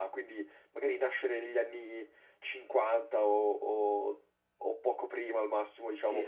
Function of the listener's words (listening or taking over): taking over